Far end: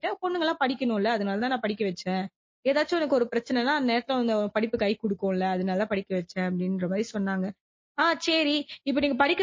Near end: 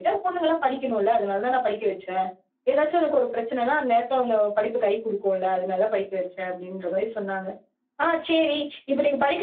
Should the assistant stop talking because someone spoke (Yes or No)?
No